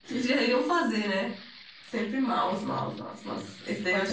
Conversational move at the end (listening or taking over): taking over